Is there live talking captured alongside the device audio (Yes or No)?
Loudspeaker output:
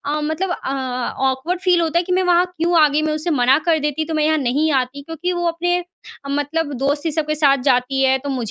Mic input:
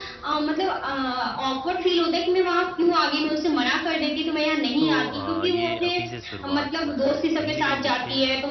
Yes